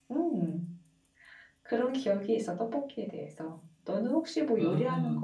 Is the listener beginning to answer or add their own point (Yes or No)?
Yes